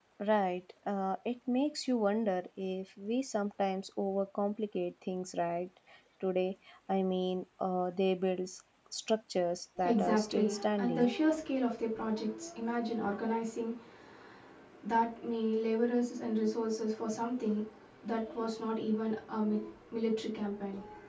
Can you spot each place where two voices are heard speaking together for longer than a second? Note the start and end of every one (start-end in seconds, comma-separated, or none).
9.8-11.1